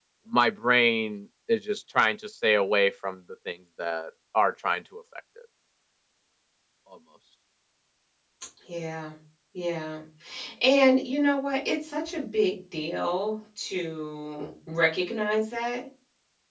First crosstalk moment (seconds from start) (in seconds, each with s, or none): none